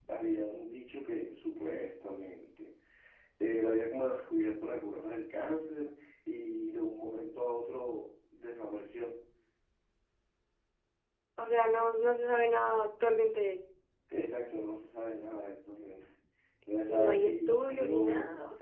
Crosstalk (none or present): present